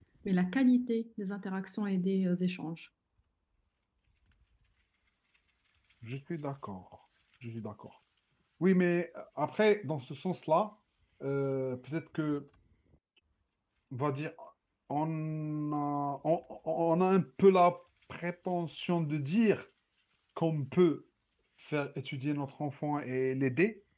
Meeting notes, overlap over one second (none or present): none